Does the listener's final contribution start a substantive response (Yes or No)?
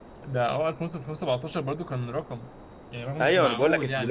Yes